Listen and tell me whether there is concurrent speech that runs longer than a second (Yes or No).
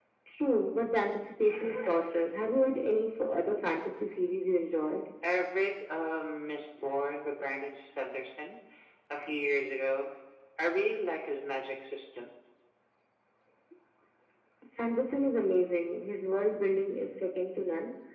No